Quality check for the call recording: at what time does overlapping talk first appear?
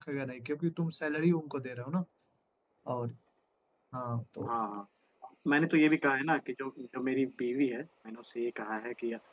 none

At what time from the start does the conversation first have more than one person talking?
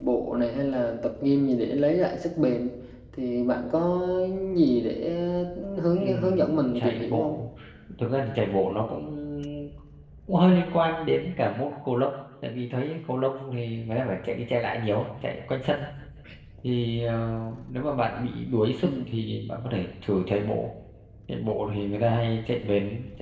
6.0 s

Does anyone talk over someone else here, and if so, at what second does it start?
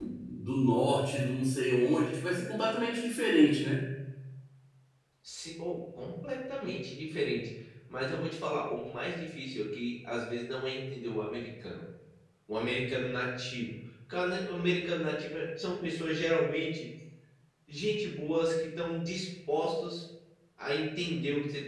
none

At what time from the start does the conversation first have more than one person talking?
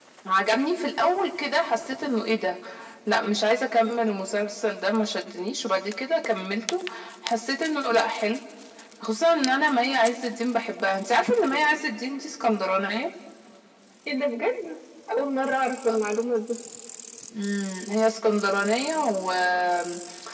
none

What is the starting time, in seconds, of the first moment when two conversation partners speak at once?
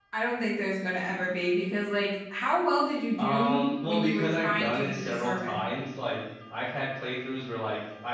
3.2 s

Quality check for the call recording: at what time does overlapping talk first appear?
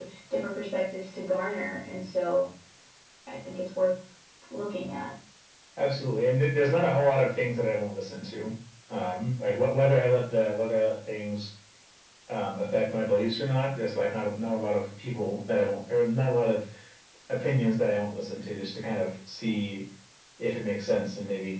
none

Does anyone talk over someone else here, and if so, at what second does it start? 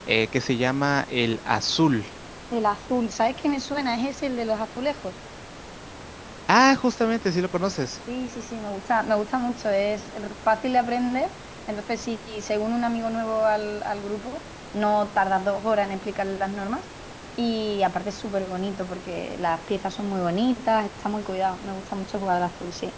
none

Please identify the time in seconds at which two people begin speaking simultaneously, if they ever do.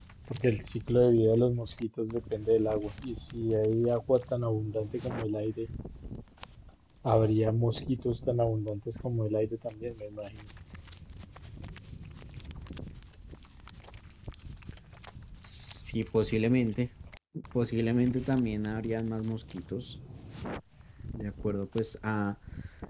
none

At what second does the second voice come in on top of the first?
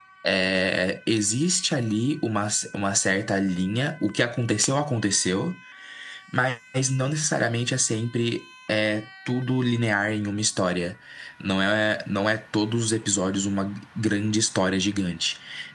none

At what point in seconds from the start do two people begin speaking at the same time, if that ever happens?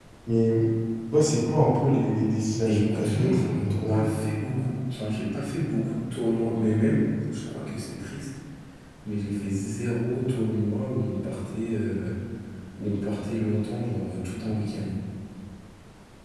2.6 s

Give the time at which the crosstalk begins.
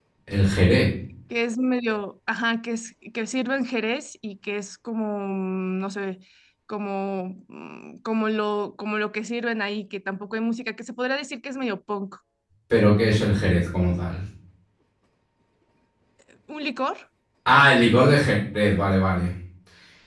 none

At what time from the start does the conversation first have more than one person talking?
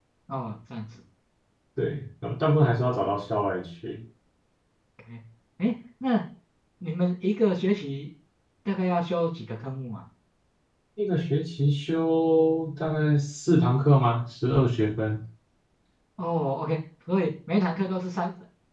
none

